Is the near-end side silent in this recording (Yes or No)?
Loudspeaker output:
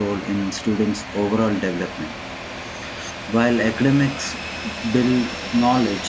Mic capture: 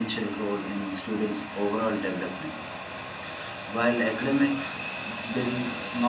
Yes